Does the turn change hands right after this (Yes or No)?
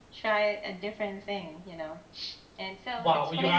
Yes